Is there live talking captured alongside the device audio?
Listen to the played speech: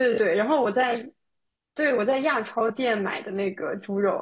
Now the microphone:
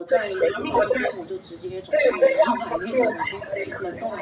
Yes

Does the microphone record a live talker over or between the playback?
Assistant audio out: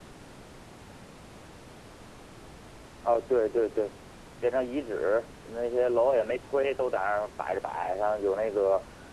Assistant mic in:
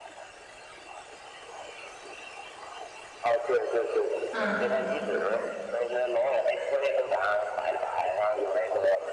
Yes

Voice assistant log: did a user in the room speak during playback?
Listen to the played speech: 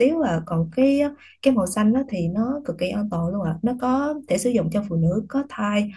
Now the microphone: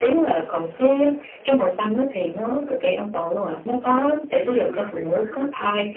Yes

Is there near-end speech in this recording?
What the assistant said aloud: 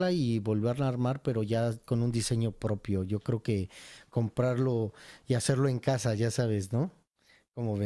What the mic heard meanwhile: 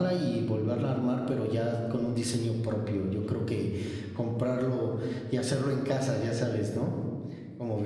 No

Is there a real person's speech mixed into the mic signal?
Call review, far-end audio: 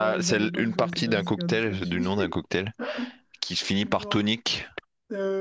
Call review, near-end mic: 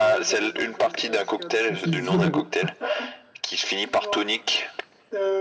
Yes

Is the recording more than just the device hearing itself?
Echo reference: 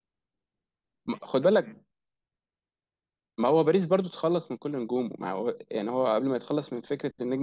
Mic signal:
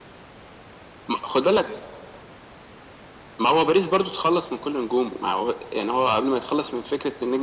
No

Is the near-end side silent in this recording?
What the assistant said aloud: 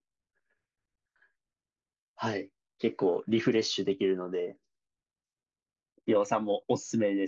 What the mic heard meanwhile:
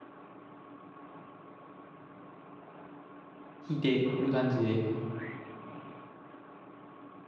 No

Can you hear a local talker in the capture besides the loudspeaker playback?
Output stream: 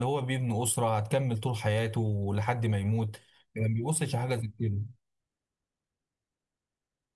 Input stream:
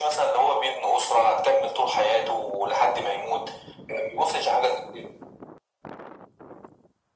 No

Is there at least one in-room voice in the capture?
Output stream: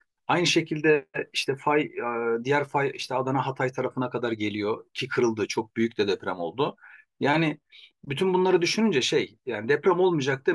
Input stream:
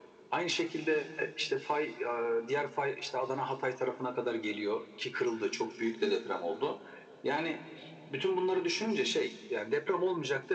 No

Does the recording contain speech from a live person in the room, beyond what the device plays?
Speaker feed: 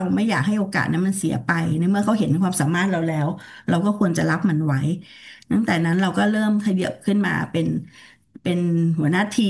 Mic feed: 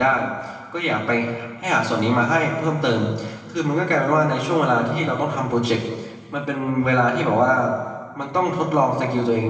Yes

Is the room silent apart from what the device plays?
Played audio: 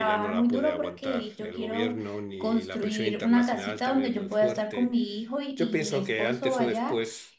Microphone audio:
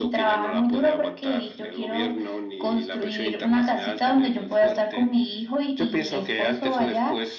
Yes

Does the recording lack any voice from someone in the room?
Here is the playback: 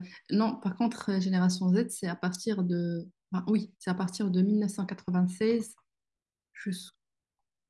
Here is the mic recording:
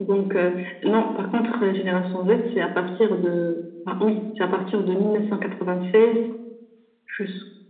Yes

